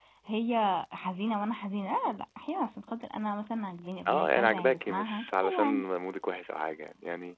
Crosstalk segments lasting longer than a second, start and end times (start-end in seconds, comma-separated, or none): 4.1-5.8